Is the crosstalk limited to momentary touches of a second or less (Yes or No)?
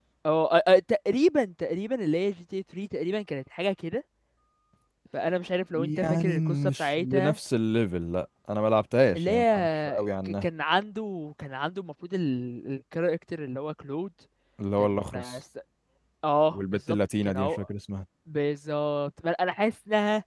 No